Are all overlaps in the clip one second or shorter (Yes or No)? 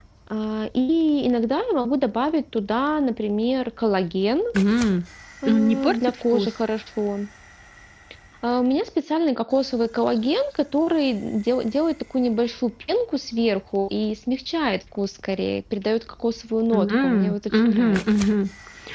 No